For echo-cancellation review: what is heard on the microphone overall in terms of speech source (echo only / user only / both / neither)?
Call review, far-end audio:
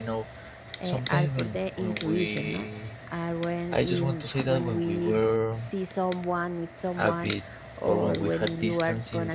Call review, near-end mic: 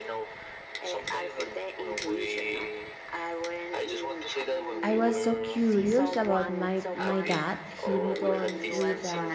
both